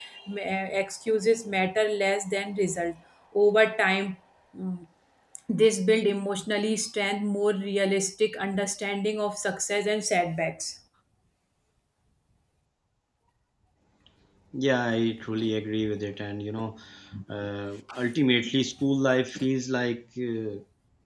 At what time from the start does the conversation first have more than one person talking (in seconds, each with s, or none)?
none